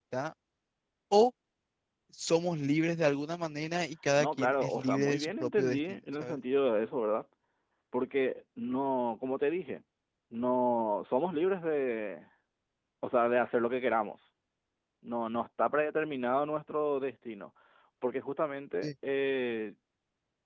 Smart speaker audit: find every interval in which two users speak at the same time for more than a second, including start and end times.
4.2-6.4

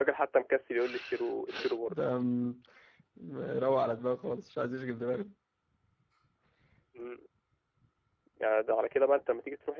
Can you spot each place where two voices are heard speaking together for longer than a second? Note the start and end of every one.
none

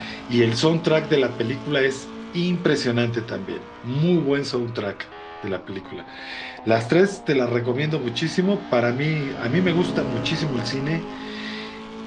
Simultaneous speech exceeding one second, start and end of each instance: none

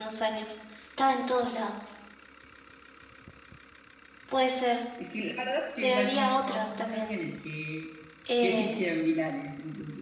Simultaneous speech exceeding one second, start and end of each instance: 5.8-7.1

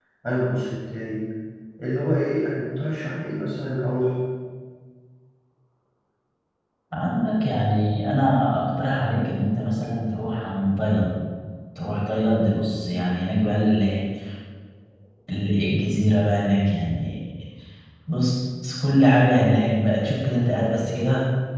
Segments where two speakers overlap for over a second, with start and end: none

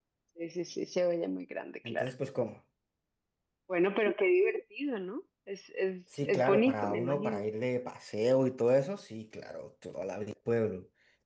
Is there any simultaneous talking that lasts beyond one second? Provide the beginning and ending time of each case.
6.2-7.5

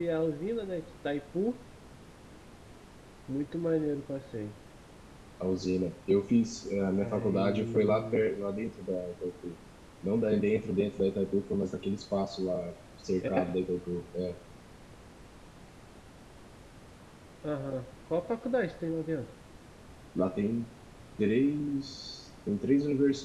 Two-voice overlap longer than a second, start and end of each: 7.0-8.2

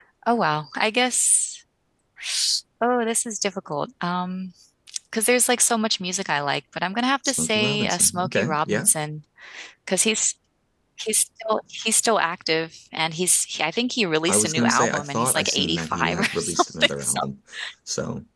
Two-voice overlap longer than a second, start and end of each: 7.2-8.9, 14.3-17.2

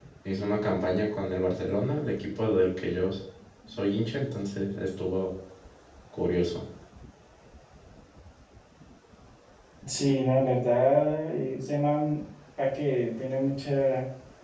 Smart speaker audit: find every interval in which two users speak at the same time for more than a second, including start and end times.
none

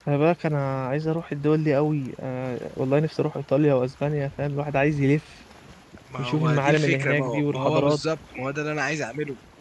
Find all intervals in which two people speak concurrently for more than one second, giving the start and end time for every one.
6.2-8.0

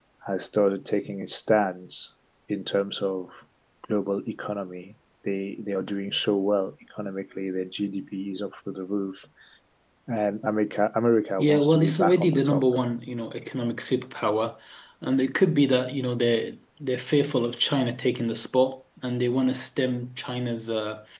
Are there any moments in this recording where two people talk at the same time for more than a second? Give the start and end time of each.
11.4-12.6

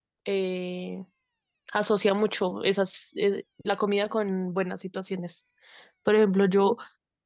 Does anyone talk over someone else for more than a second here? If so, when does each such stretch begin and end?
none

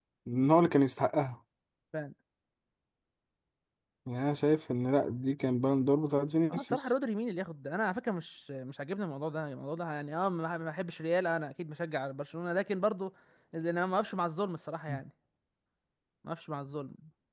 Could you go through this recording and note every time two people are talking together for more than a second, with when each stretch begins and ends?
none

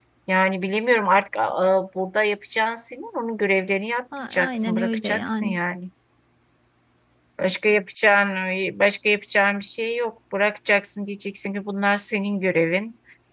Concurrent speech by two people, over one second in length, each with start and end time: 4.2-5.6

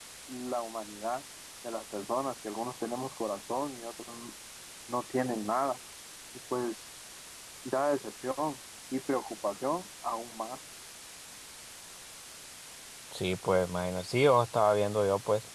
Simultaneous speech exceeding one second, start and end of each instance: none

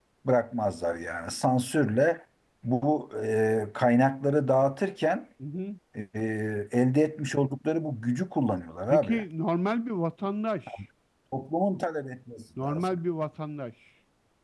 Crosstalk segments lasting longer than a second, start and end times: none

